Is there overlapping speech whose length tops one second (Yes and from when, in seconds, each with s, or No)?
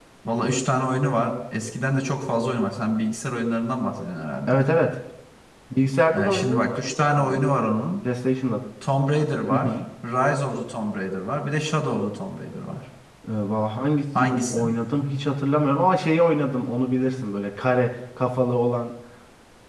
Yes, from 6.1 s